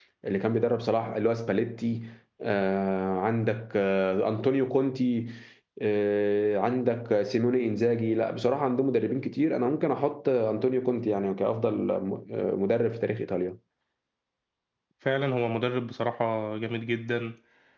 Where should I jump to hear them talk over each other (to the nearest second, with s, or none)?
none